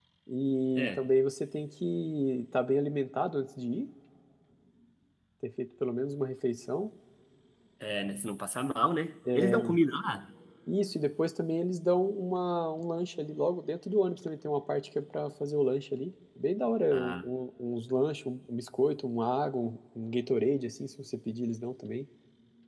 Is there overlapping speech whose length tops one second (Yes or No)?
No